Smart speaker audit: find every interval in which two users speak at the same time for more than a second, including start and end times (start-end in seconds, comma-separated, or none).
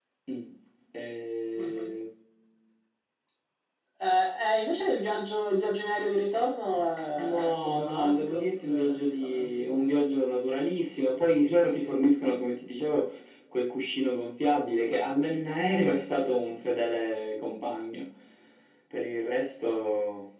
7.2-10.0